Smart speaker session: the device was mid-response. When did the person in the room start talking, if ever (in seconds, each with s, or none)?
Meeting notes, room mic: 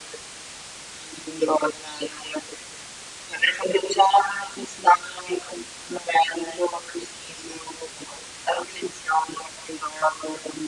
none